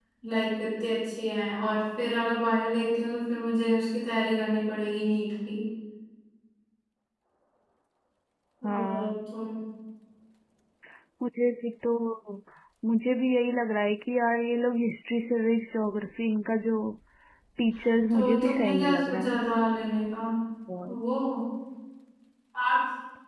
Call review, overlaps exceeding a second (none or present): present